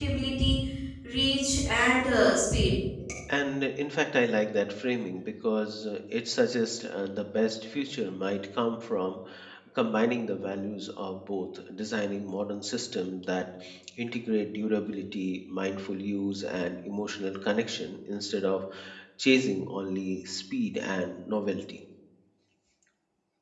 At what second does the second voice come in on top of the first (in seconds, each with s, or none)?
none